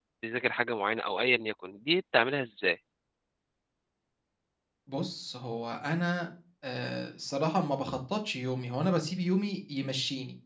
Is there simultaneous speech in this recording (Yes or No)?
No